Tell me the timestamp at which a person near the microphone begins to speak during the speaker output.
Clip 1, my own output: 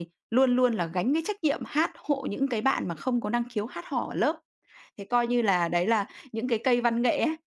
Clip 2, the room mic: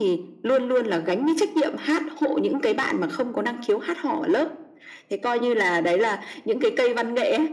none

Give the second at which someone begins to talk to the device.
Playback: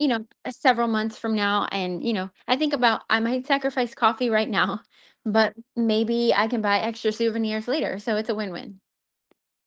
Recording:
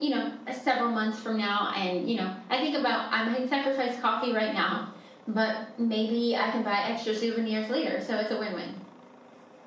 none

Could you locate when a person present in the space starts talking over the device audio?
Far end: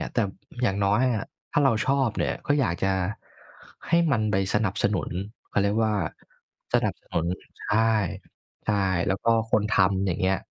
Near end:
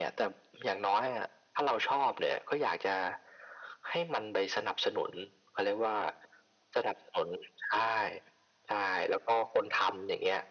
none

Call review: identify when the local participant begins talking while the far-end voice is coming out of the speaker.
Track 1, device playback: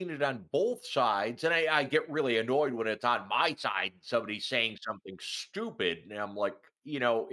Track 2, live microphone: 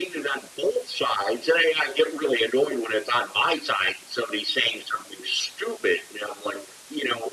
none

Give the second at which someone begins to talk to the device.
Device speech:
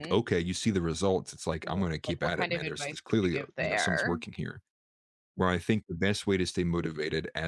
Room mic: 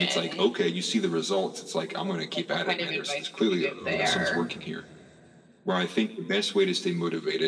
4 s

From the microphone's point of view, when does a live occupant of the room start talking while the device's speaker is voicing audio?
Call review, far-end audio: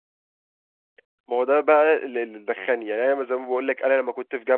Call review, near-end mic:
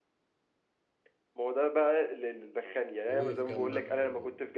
3 s

